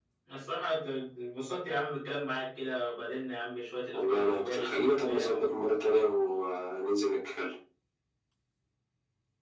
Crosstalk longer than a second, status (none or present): present